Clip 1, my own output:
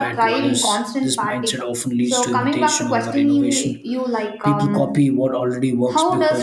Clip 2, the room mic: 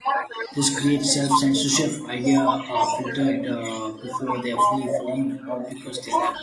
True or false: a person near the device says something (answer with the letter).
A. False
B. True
B